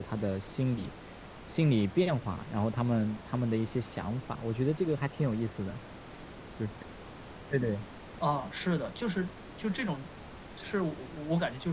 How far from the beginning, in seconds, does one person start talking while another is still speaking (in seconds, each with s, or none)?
none